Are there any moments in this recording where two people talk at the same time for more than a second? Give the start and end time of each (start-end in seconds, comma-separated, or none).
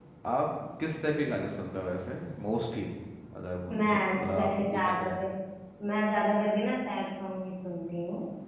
3.7-5.1